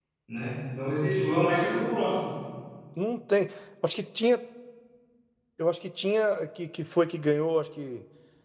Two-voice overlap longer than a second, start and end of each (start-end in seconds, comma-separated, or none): none